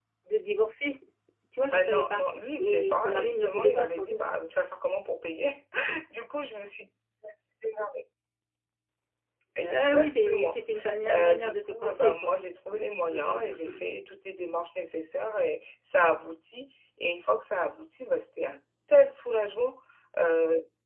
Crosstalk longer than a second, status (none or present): present